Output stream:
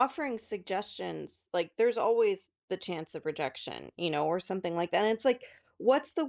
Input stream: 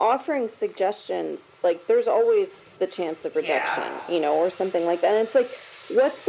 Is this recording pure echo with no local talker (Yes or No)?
No